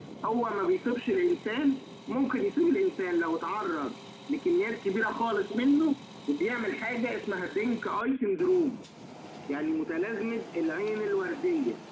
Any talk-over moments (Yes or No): No